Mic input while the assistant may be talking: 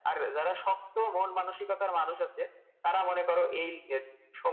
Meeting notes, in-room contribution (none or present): none